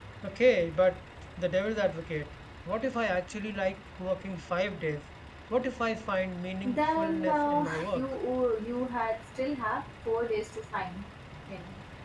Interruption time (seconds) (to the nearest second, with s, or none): 7 s